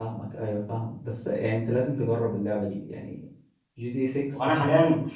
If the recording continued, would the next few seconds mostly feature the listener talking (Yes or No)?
Yes